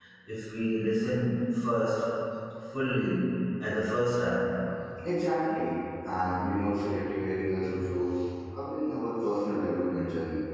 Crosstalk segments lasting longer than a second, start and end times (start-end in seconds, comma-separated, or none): none